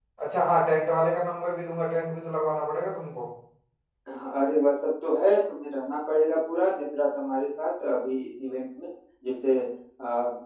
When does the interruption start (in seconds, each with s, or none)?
none